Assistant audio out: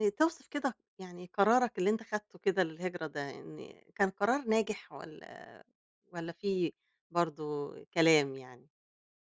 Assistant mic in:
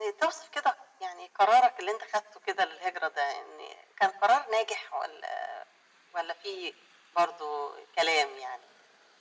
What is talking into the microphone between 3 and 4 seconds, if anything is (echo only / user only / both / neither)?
echo only